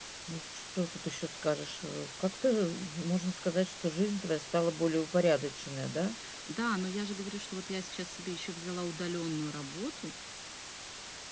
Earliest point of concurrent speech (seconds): none

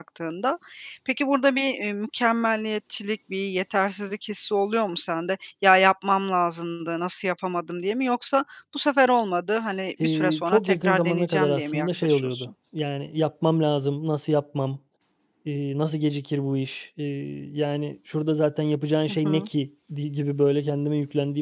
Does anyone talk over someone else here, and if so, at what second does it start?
10.0 s

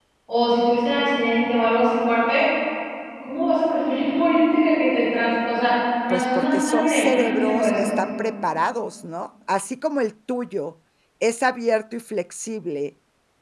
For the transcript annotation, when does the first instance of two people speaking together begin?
6.1 s

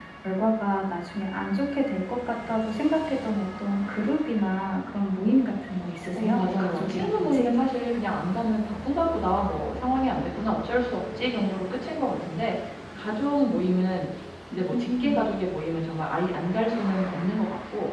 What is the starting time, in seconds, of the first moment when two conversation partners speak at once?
6.2 s

